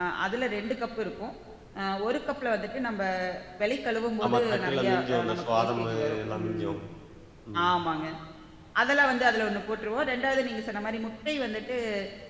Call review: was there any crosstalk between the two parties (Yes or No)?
Yes